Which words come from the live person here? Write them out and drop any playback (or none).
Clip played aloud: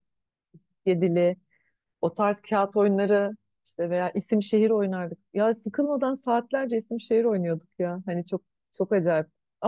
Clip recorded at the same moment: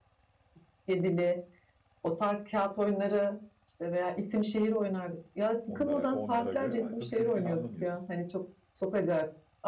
onlara onlara göre ama tabii çocukken anlamıyorsun.